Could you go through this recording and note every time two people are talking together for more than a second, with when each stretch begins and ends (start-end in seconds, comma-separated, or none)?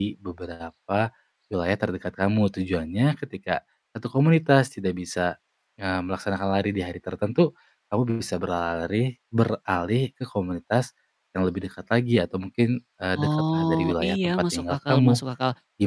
13.2-15.2